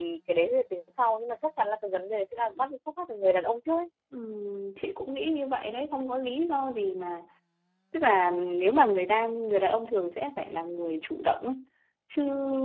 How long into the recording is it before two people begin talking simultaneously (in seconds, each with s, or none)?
none